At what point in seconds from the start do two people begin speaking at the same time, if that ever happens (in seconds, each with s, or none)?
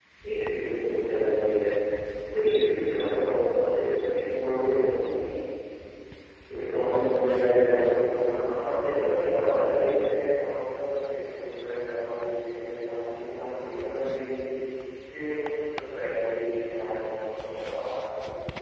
8.2 s